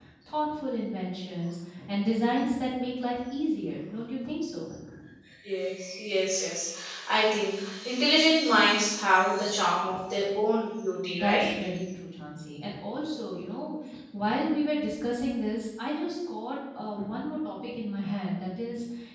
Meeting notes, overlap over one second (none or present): none